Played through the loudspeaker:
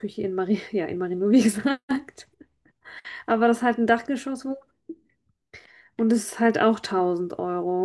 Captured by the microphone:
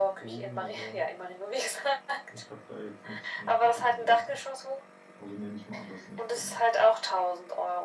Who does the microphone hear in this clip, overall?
both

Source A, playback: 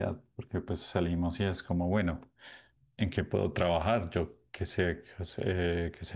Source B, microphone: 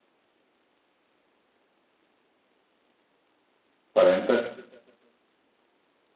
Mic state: user only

